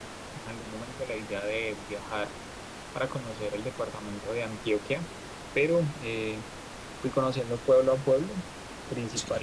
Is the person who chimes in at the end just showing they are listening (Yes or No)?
Yes